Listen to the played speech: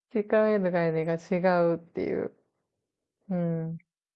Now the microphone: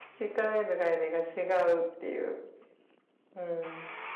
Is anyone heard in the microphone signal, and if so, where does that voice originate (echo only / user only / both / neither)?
echo only